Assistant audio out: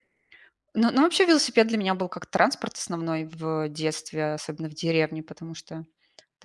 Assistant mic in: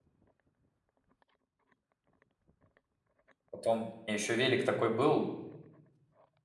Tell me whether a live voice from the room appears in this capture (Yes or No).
Yes